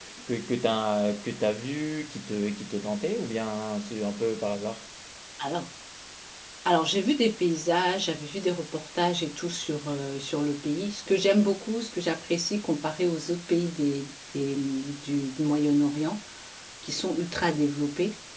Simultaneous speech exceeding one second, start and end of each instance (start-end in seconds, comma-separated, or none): none